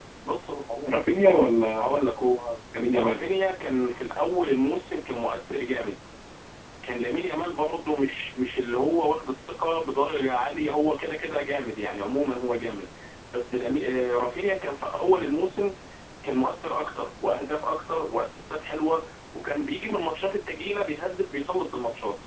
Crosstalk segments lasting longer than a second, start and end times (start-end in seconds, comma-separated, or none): none